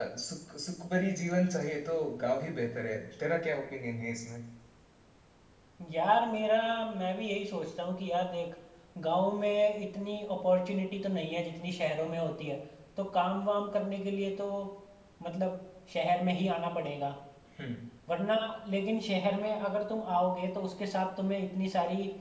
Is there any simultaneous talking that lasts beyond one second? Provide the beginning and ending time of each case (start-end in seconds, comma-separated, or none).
none